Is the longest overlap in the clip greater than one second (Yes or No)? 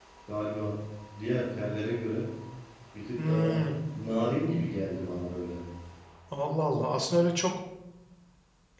No